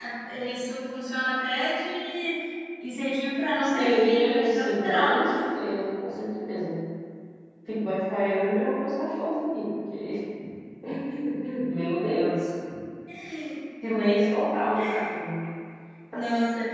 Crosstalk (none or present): present